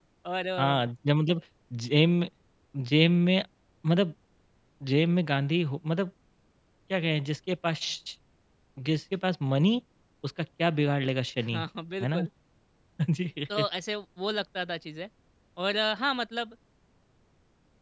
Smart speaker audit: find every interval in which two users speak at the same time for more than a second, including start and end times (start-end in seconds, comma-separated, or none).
none